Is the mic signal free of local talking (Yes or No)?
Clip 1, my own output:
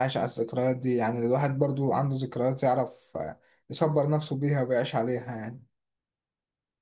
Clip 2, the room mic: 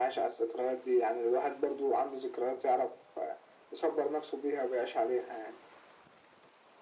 Yes